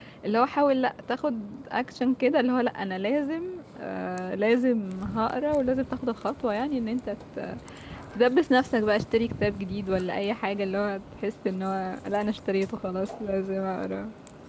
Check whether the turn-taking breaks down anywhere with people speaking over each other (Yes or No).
No